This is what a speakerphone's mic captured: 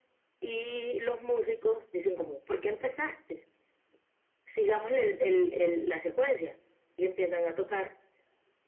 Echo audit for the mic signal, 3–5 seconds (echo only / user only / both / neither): echo only